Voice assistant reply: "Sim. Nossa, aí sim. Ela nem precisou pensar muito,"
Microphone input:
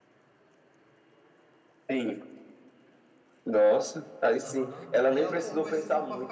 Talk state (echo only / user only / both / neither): both